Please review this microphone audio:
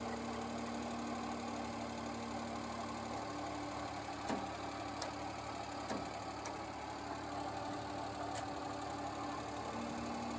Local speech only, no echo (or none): none